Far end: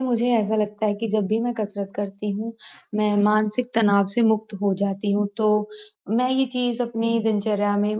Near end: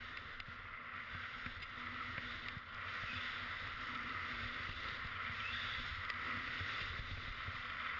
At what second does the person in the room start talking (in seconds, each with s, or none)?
none